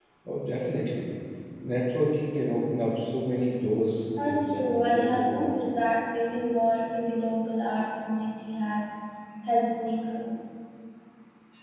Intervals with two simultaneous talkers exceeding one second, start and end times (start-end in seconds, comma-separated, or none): 4.2-5.5